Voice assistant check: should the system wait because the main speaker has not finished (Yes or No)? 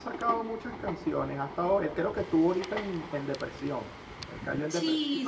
No